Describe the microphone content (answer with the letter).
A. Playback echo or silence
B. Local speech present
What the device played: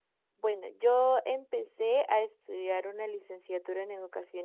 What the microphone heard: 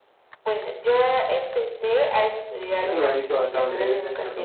B